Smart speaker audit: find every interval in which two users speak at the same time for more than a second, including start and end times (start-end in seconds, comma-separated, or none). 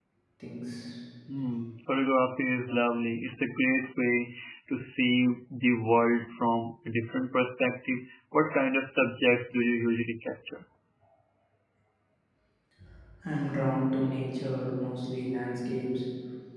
none